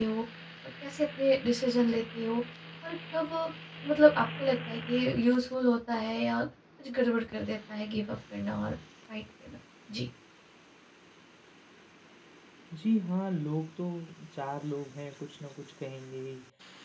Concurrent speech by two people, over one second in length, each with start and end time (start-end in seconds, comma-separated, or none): none